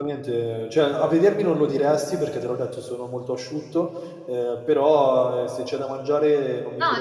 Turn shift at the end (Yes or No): Yes